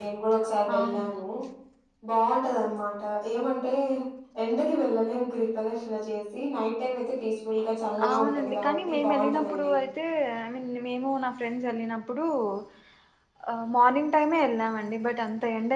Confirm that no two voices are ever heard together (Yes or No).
No